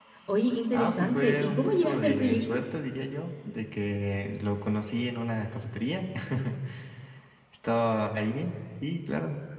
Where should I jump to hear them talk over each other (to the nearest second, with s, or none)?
1 s